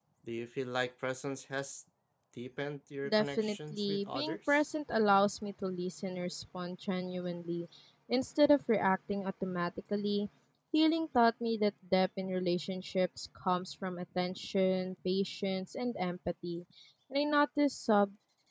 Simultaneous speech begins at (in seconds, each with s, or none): 3.1 s